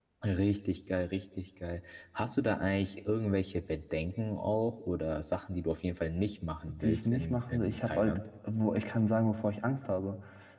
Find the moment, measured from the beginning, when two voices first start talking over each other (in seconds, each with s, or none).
6.8 s